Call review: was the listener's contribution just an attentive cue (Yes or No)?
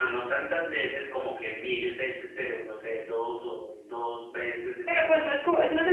No